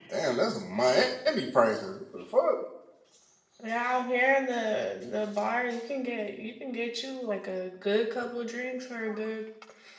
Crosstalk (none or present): none